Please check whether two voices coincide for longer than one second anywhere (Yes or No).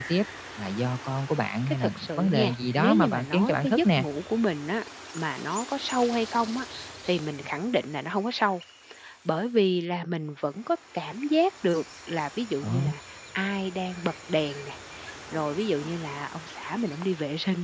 Yes